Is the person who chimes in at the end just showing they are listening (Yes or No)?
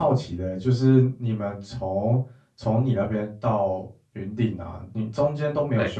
Yes